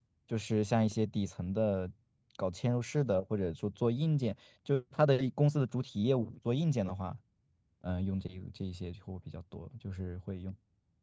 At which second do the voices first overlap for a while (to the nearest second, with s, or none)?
none